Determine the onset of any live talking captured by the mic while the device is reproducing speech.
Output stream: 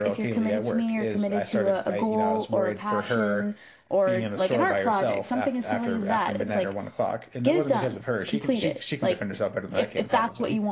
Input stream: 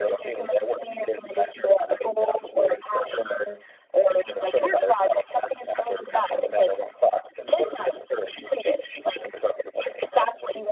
none

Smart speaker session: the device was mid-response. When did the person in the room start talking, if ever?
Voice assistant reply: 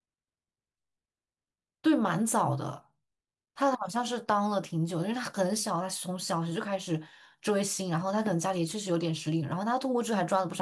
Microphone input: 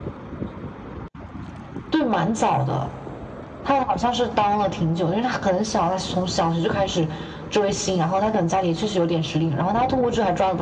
none

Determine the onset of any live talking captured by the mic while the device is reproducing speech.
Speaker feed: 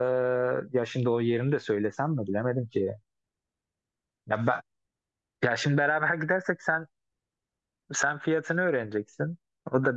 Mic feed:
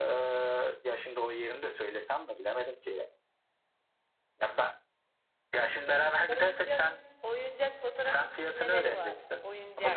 5.7 s

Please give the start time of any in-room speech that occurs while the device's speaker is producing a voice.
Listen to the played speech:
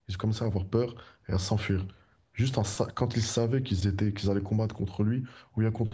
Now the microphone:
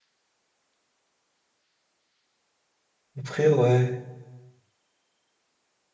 3.2 s

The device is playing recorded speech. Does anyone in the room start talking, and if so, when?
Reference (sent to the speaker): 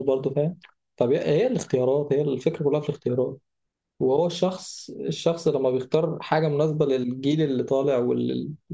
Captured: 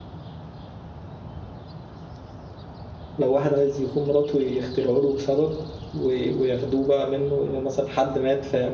3.2 s

